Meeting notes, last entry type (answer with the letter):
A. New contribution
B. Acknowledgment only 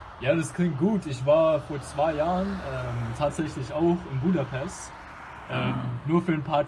B